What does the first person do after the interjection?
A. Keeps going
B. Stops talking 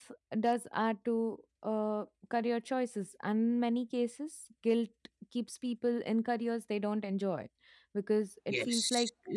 B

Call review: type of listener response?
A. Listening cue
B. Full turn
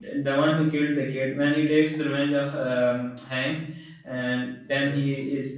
A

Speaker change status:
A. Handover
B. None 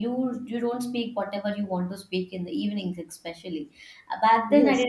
B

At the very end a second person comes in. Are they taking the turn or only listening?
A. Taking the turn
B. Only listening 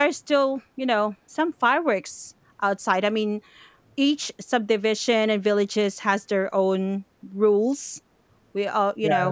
A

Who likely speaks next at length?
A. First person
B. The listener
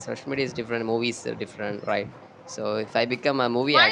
B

